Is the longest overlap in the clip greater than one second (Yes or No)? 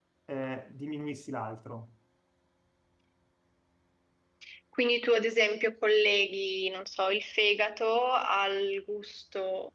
No